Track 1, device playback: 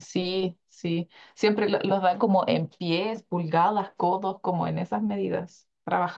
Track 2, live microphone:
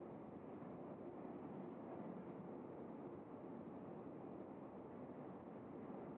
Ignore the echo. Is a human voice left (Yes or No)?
No